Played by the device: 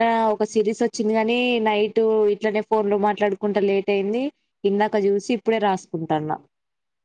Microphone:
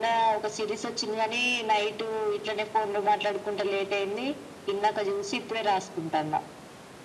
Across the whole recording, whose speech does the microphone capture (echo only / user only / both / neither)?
echo only